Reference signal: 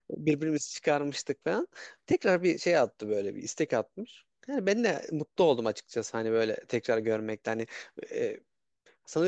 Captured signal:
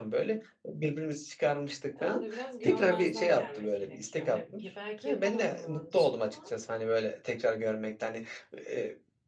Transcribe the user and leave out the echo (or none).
E, Onu da biraz görmezden gelmek gerekiyor. Hani bir- belki yapamadın o an için ama